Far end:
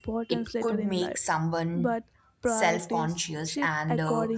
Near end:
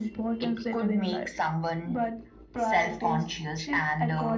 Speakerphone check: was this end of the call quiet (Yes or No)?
Yes